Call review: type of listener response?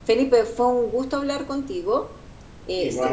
listening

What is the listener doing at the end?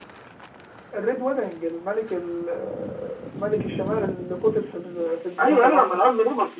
taking over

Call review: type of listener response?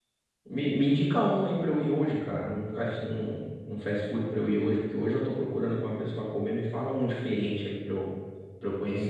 taking over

